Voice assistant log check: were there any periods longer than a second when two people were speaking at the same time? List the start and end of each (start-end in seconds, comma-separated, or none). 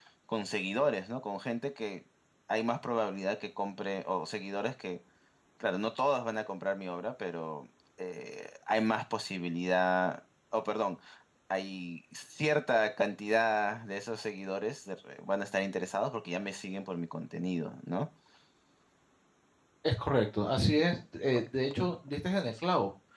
none